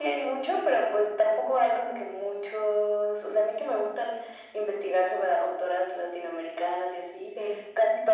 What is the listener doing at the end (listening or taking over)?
listening